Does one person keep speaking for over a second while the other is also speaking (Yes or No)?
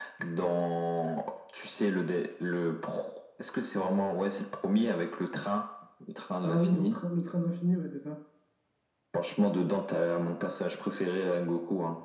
No